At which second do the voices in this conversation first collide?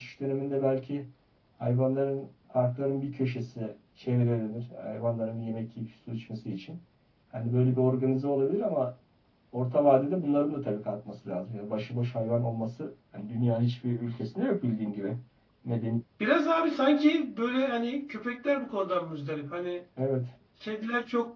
none

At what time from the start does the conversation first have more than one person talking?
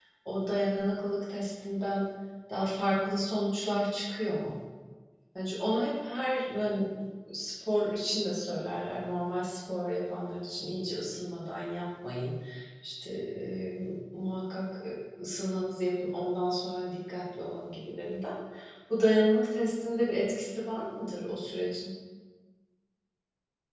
none

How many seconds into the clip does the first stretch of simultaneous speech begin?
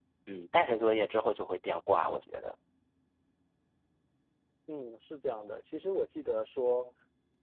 none

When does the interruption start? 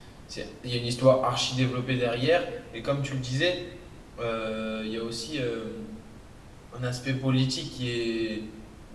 none

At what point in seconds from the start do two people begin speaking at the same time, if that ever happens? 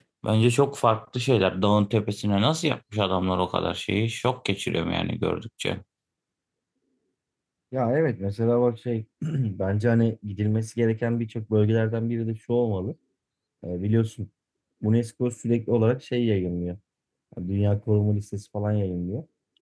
none

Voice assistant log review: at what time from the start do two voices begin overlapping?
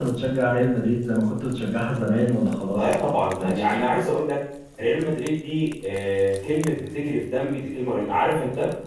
2.7 s

